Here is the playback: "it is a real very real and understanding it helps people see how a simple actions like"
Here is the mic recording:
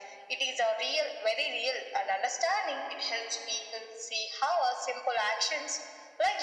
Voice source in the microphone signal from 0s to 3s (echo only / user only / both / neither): echo only